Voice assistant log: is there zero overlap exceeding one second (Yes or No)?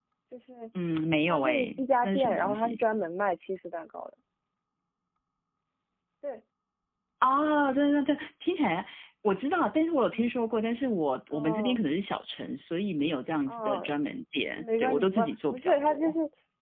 No